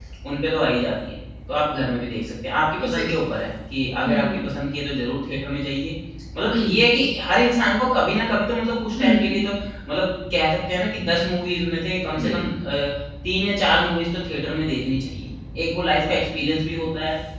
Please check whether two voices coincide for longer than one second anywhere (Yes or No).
No